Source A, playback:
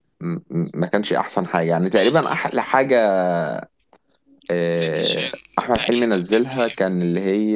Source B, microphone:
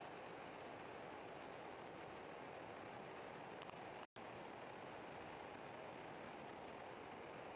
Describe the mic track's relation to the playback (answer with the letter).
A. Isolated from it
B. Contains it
A